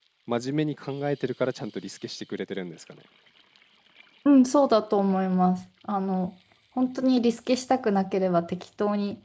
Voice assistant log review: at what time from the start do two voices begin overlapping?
none

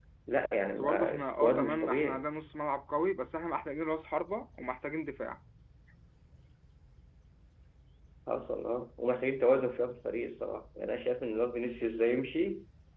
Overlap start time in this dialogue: 0.8 s

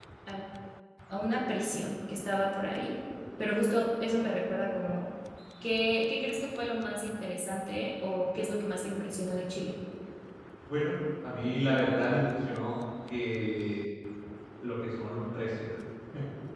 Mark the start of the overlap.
none

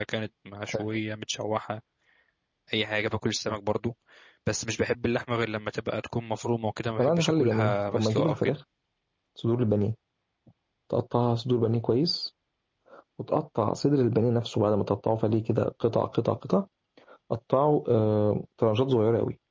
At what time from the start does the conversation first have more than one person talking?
7.0 s

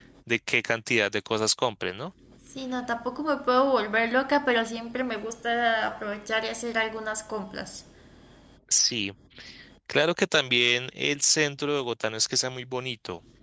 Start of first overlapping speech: none

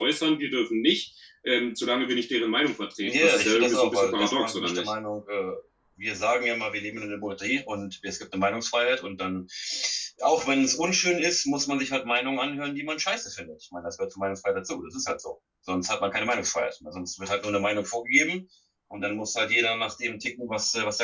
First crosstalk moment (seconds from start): 3.0 s

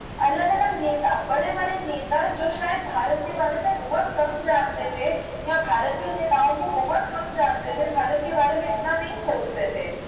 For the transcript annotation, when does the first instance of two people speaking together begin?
none

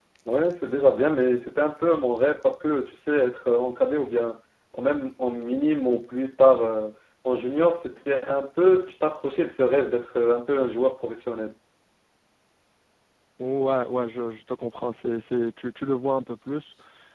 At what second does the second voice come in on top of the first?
none

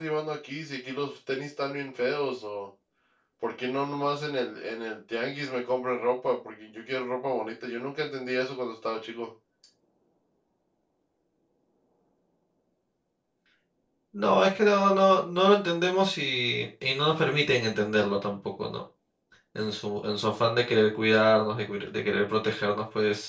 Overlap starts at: none

